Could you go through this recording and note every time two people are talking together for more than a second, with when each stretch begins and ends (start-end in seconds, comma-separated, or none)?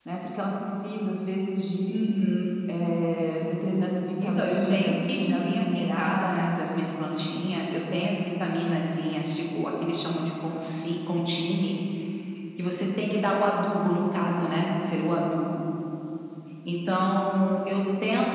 4.2-6.7